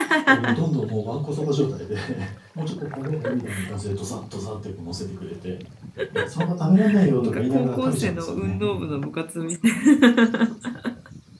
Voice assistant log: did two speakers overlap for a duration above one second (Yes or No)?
Yes